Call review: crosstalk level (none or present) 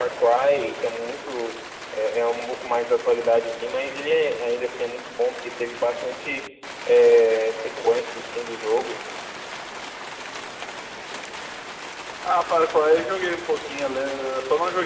none